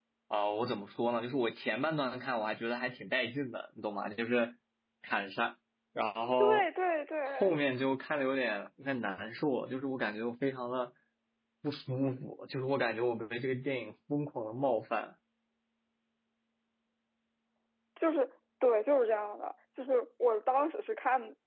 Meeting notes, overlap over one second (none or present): none